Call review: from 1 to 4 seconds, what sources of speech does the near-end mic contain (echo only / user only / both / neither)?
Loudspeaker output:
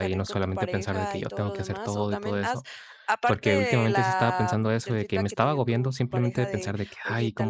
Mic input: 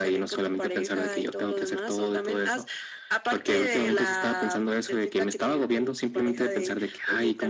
echo only